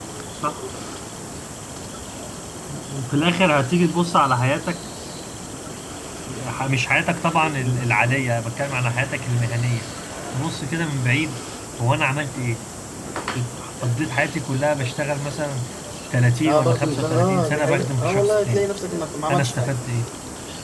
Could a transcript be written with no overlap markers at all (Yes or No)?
No